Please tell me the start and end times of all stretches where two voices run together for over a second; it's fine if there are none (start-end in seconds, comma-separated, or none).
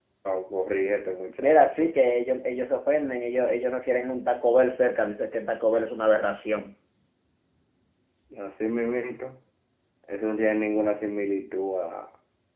none